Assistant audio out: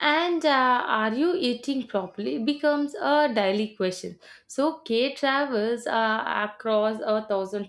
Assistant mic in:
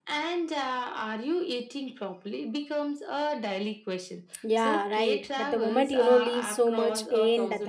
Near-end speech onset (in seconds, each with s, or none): 4.4 s